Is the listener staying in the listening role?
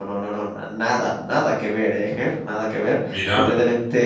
Yes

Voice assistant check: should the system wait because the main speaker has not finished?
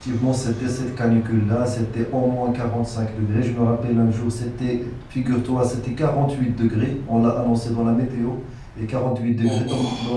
Yes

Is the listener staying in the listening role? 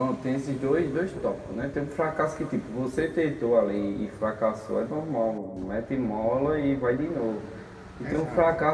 Yes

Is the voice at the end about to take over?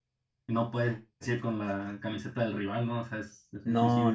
Yes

